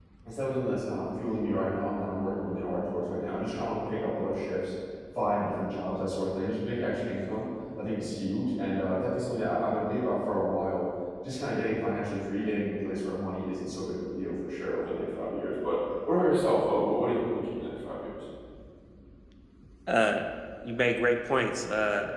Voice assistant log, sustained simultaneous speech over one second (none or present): none